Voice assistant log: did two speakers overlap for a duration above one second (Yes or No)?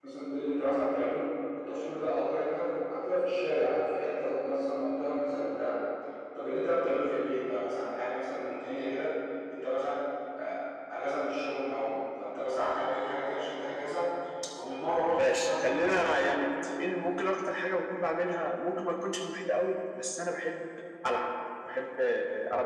Yes